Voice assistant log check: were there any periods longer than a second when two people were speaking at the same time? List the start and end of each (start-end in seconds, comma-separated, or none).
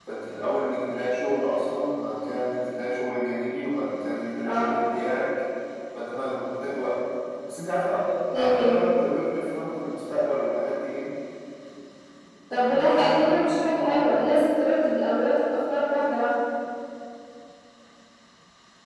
12.5-14.3